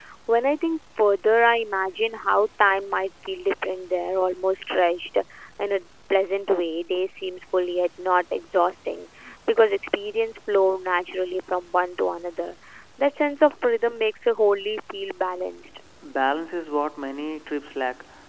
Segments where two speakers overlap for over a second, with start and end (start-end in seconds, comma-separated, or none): none